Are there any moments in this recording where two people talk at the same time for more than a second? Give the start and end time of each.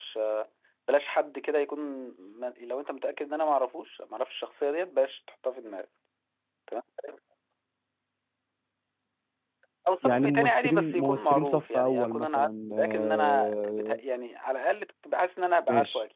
10.0-14.0

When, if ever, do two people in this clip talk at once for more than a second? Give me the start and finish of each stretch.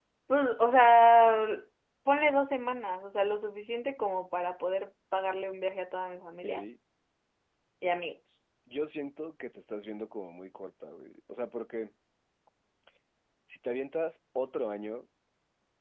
none

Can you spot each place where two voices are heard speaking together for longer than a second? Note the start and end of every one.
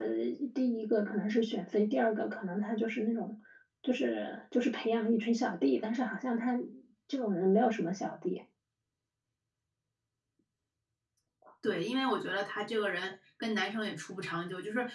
none

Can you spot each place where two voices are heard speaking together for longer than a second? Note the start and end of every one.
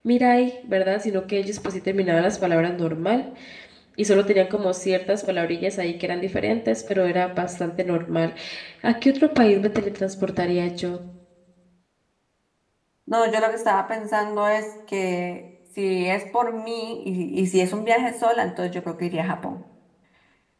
none

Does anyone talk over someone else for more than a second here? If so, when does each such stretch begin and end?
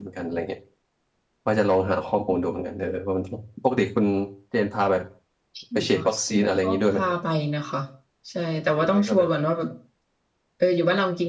5.8-7.1

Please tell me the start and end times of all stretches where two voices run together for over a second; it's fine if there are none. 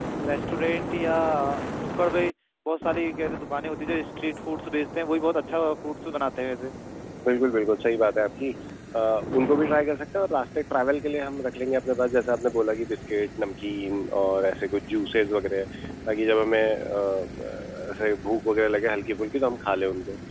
none

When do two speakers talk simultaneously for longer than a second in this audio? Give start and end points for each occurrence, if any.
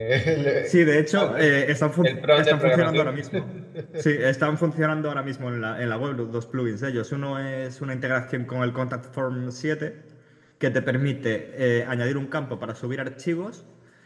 2.0-3.2

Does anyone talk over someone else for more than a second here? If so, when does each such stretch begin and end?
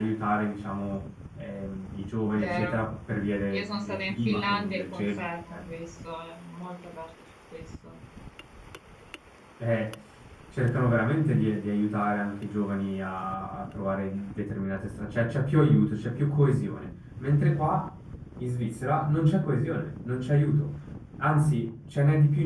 3.5-5.6

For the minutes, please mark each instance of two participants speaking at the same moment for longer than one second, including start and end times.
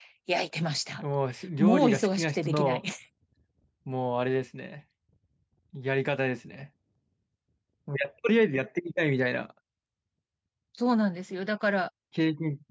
1.6-2.8

